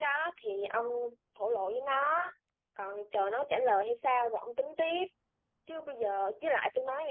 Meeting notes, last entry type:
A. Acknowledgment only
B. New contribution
A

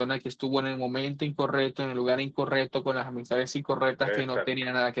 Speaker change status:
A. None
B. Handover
A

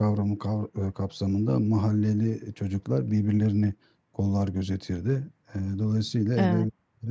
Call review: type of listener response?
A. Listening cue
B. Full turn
A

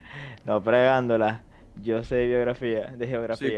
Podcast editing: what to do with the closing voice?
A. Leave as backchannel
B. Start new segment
B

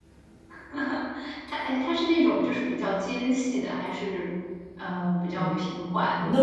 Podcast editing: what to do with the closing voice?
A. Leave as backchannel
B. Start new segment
B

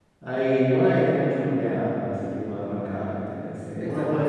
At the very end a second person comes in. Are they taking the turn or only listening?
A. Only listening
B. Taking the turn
B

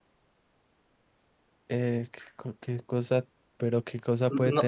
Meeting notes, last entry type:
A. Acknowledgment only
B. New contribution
B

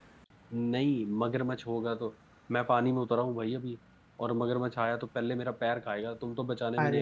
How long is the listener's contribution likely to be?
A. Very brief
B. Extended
B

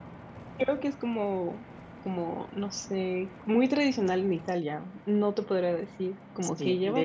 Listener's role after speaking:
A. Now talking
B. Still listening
A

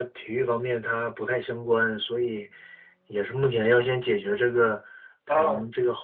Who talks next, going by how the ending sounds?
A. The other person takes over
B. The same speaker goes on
B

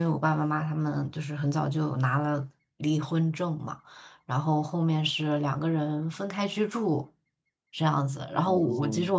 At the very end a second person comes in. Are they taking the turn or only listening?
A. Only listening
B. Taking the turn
A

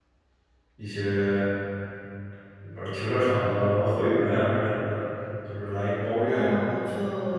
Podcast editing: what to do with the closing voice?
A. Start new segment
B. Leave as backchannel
A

